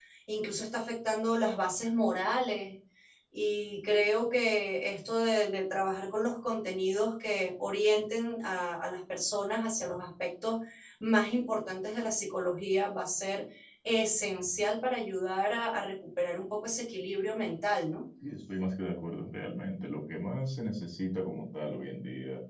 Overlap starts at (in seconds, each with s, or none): none